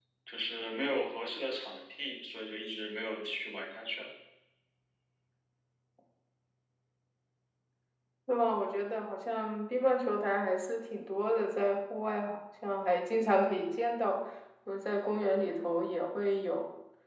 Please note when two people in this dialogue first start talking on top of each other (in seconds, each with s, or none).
none